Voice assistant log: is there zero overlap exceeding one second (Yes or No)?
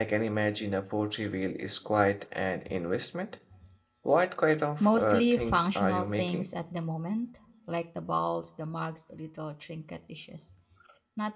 No